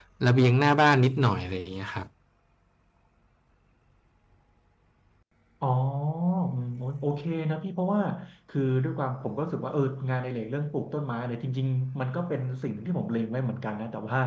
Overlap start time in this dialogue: none

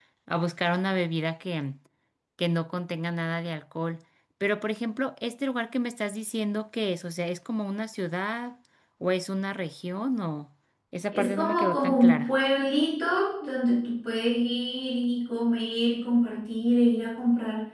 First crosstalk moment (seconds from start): 11.1 s

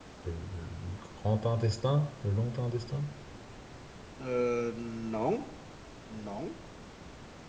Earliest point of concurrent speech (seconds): none

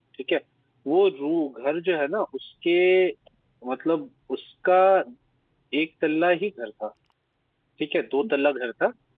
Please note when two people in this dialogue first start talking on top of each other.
none

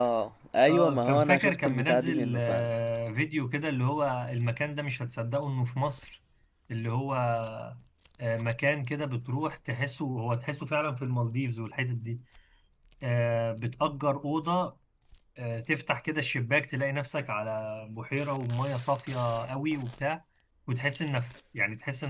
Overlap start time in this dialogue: 0.7 s

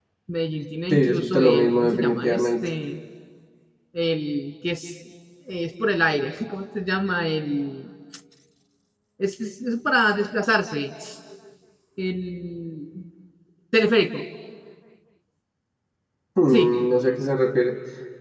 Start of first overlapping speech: 0.9 s

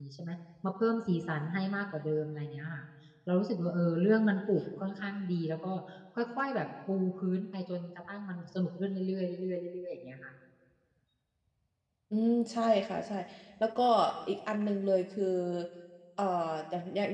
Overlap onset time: none

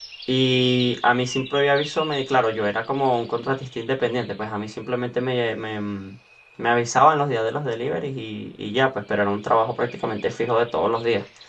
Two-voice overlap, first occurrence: none

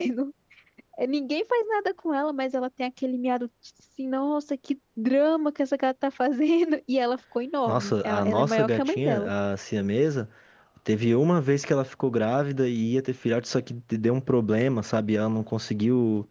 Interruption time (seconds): 7.7 s

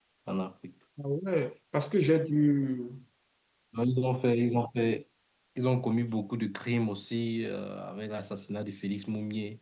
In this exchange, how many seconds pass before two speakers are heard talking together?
none

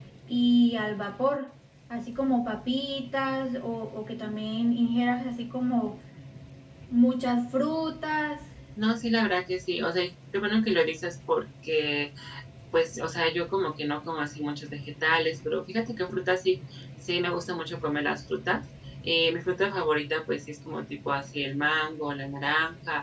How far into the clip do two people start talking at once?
none

